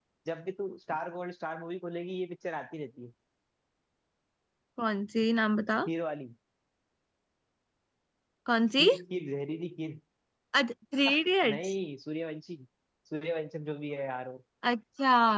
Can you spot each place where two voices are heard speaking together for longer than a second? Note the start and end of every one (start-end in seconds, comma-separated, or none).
none